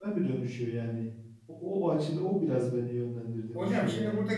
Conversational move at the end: taking over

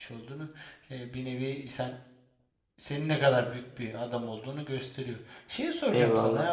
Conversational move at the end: listening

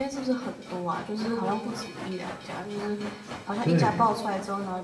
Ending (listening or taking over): listening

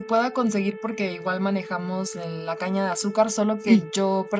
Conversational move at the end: listening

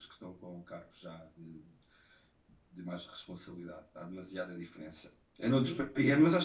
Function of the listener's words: listening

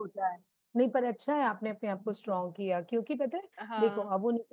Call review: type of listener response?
listening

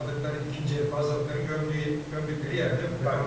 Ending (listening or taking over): taking over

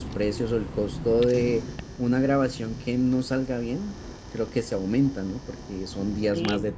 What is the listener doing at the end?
listening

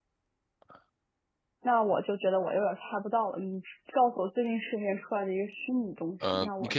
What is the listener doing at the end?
taking over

